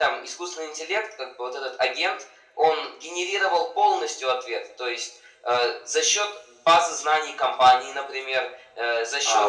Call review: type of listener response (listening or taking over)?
taking over